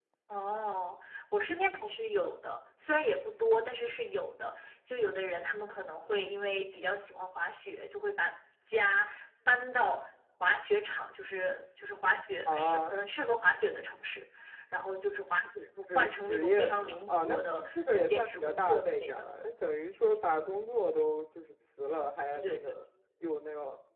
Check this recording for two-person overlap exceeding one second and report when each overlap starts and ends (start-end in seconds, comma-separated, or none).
15.9-19.1